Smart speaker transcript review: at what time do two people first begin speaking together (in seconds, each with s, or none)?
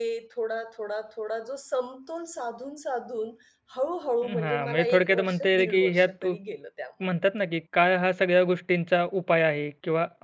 4.2 s